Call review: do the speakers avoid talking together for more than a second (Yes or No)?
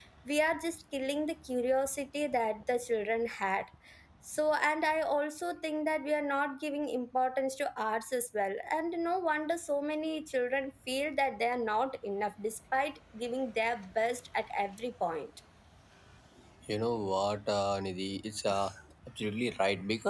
Yes